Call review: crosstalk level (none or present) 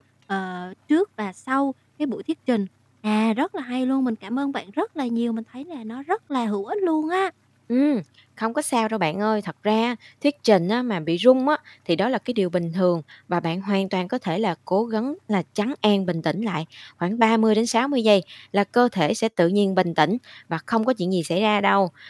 none